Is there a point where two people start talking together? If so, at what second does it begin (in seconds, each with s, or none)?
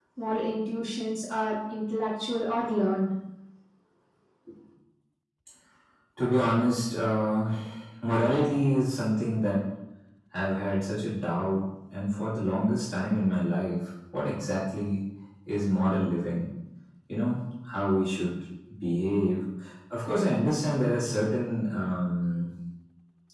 none